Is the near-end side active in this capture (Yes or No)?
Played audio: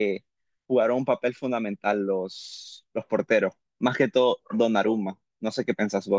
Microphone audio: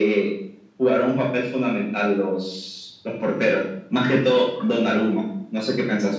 No